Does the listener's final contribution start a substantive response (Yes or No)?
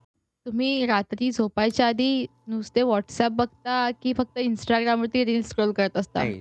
Yes